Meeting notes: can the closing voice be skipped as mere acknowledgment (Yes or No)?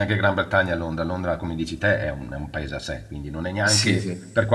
Yes